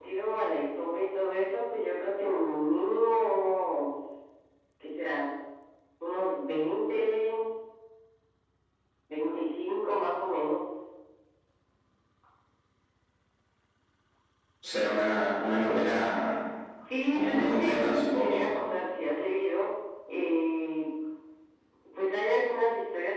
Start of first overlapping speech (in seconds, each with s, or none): 17.1 s